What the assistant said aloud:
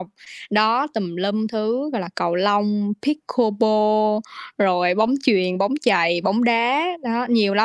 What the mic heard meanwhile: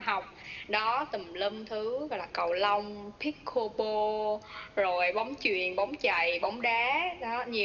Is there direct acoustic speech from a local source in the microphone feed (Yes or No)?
No